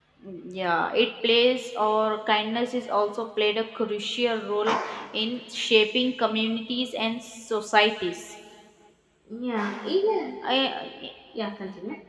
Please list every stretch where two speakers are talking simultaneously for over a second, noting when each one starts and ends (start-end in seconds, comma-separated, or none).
none